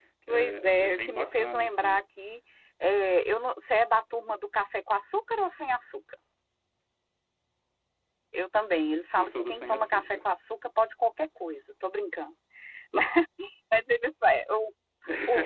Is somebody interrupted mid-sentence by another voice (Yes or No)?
Yes